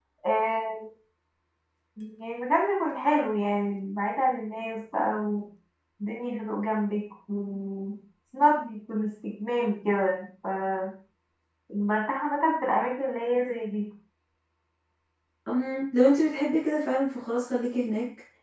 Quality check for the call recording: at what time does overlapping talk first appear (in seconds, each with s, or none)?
none